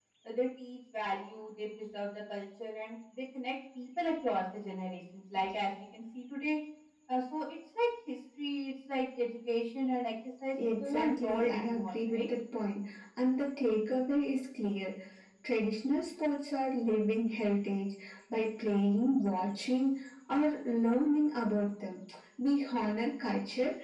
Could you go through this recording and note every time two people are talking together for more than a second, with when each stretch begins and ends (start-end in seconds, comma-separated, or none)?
10.8-12.2